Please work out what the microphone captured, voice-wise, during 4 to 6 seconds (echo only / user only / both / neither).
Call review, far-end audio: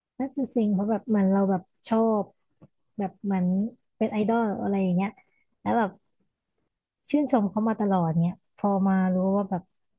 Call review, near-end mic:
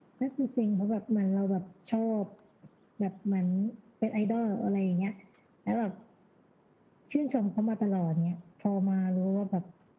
echo only